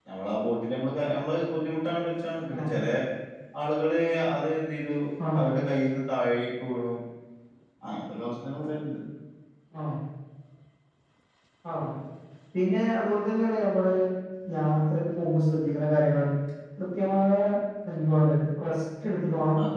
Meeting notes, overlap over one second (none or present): none